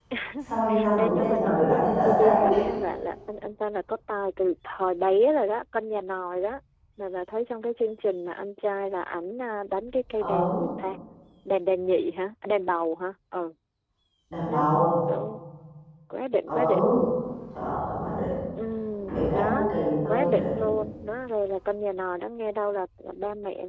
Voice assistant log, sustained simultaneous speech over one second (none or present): present